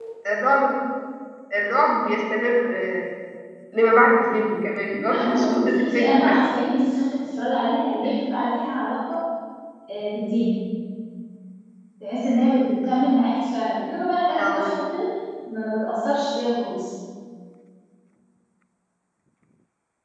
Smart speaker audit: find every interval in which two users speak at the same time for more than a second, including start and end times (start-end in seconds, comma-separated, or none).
5.1-6.4